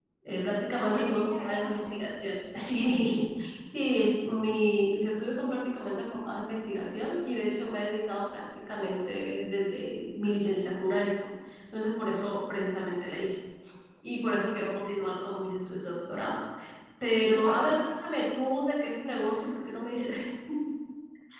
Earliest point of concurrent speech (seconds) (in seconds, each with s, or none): 0.8 s